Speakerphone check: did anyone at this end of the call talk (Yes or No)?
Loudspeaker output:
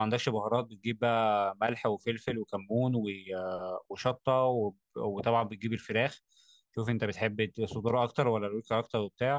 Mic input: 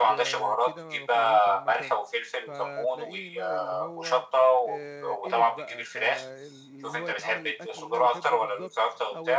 Yes